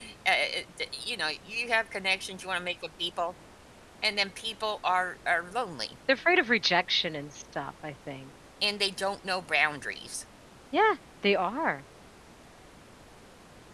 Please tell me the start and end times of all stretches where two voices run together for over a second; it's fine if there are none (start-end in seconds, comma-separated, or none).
none